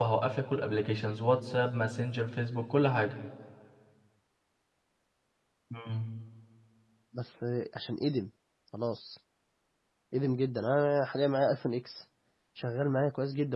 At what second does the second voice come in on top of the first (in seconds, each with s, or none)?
none